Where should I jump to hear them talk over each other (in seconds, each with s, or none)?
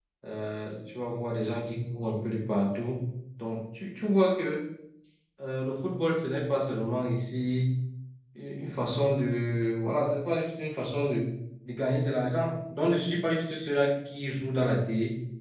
none